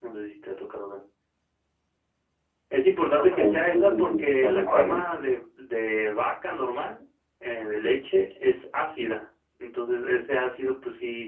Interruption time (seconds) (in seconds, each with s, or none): 3.2 s